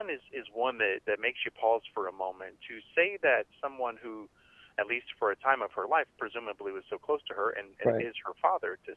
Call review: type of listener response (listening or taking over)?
listening